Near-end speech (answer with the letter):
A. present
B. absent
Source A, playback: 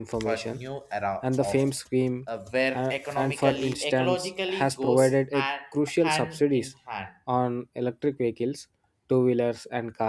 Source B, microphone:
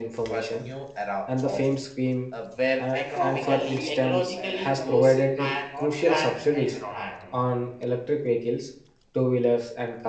A